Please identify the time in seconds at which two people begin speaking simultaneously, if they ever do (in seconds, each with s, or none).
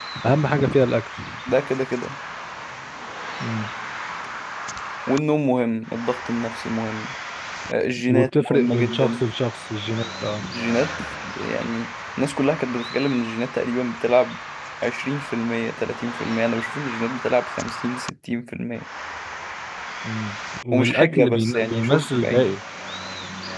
8.1 s